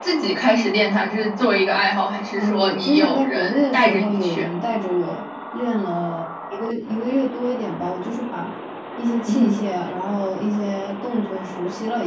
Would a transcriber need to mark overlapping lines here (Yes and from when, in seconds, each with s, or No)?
Yes, from 2.4 s